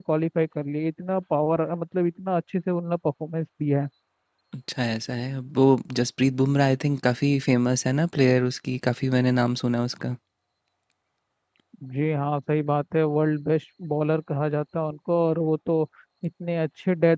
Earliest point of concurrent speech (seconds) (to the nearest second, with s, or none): none